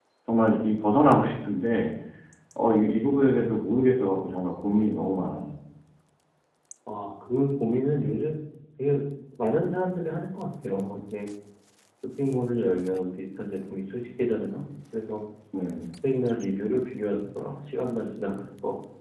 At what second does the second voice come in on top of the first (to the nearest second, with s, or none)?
none